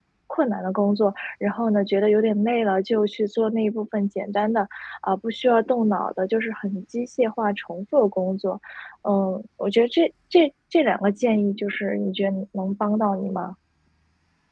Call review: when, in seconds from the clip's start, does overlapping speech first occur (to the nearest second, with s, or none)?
none